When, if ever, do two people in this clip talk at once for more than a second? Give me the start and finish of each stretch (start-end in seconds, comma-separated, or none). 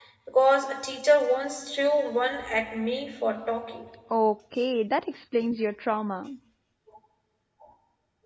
none